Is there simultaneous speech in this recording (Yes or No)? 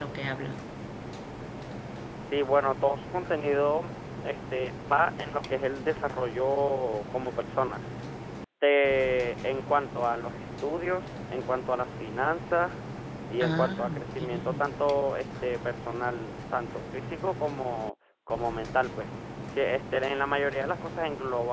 Yes